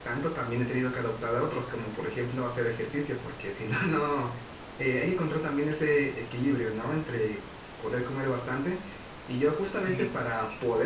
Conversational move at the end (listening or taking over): listening